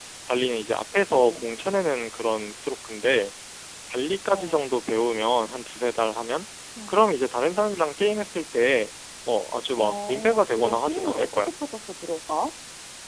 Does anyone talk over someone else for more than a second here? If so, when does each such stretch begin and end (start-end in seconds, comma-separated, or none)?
9.8-11.6